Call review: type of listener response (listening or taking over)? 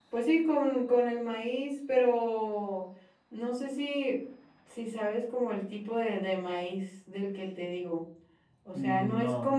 listening